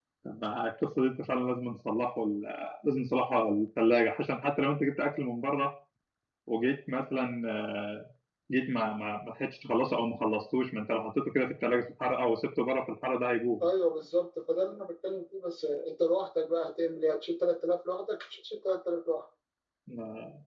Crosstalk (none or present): none